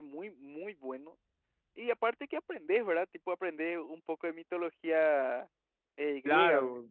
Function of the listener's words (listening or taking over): taking over